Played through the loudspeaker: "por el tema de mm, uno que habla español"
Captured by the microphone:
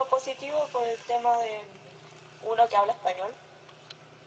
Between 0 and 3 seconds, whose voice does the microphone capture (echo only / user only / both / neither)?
echo only